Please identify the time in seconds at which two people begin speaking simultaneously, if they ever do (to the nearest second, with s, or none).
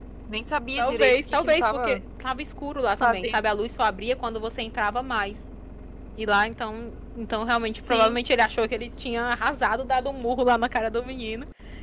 1 s